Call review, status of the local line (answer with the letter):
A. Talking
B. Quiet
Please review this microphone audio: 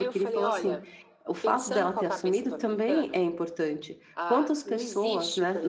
A